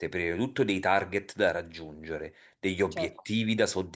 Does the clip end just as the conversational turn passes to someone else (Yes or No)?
No